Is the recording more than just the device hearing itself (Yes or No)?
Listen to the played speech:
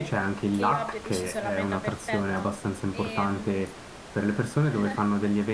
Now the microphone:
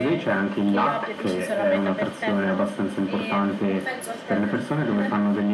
Yes